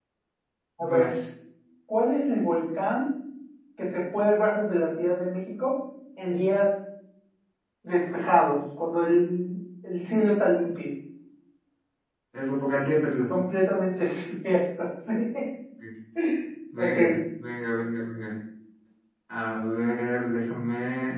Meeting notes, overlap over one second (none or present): none